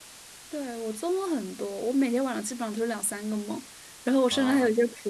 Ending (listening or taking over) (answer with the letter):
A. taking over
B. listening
B